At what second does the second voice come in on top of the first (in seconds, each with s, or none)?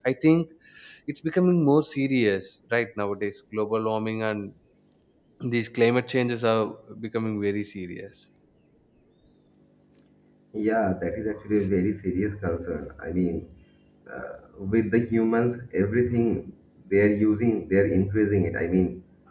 none